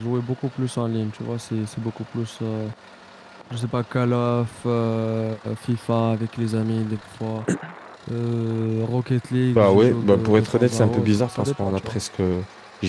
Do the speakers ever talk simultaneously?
Yes, from 9.5 s

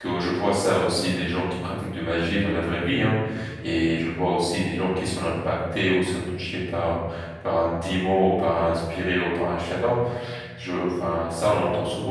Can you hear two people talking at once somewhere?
No

